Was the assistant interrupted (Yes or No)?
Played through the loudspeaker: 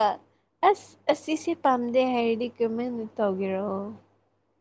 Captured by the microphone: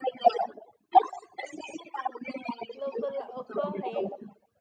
Yes